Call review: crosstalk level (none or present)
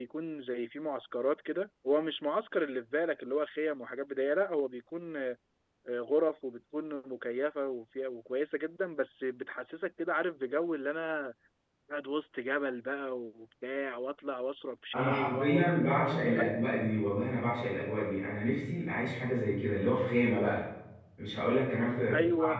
present